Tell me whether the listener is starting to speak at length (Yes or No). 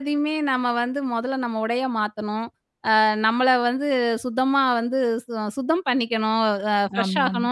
No